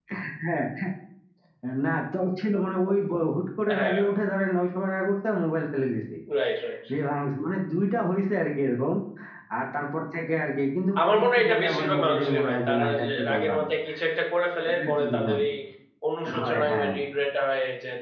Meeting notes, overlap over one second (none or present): present